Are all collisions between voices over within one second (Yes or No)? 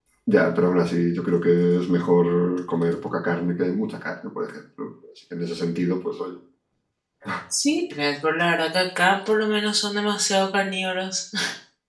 Yes